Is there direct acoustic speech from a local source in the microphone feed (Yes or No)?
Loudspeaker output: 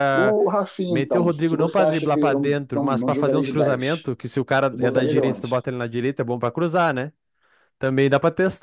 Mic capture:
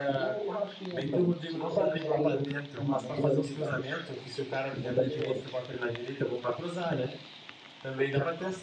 No